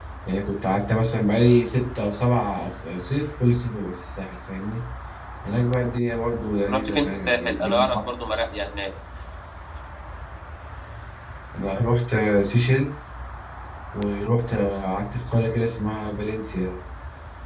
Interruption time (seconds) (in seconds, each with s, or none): 6.6 s